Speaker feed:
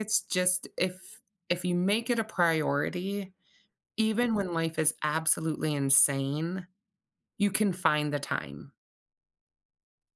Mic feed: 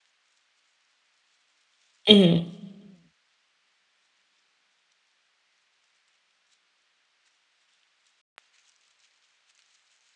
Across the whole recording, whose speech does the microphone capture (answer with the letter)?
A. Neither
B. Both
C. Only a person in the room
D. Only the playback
C